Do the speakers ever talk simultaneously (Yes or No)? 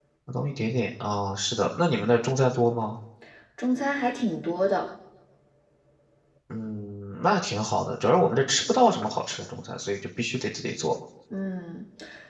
No